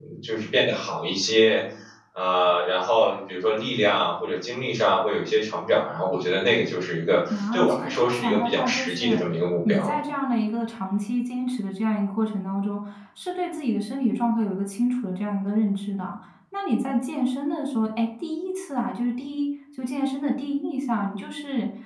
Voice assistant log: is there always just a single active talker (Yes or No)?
No